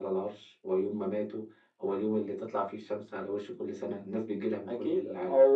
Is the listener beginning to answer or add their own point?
Yes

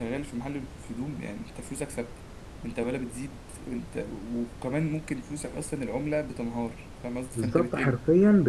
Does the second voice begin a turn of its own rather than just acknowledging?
Yes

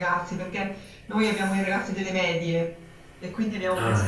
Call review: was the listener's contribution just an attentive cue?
Yes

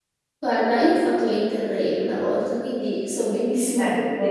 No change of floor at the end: Yes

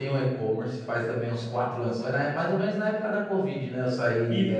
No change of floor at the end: Yes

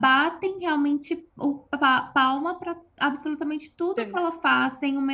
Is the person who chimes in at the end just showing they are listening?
Yes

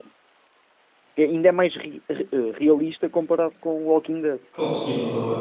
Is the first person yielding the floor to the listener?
Yes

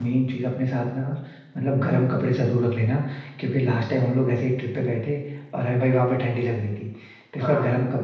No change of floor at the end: Yes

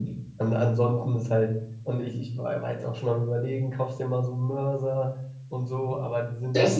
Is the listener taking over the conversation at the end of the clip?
Yes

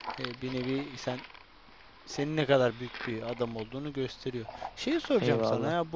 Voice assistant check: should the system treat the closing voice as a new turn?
No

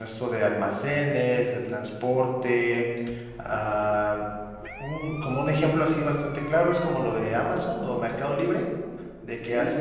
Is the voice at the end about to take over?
No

